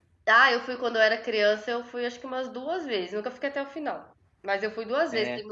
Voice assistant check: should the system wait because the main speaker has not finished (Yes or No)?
Yes